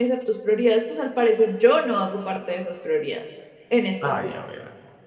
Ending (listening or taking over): taking over